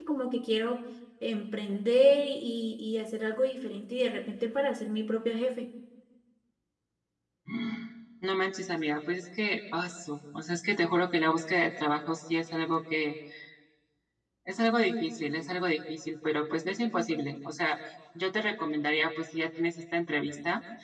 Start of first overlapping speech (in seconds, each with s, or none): none